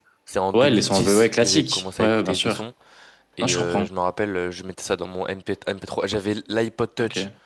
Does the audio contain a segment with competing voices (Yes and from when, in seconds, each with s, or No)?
Yes, from 0.6 s